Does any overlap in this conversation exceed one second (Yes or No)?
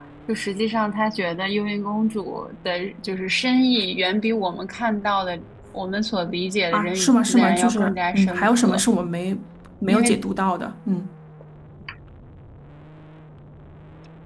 Yes